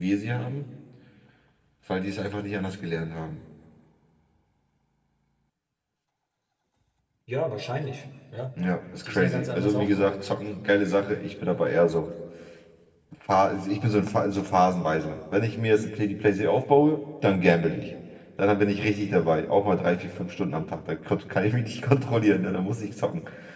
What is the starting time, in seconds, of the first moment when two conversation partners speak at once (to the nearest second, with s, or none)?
9 s